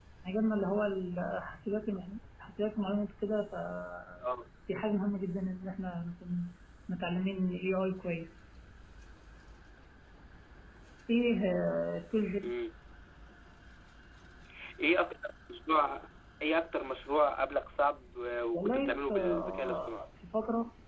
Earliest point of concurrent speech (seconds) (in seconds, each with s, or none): 18.5 s